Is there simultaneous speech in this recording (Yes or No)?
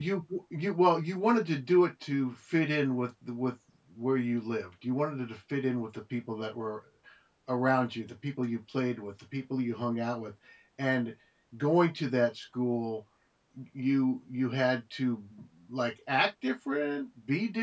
No